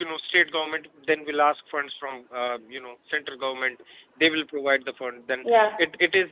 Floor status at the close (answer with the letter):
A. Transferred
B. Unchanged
B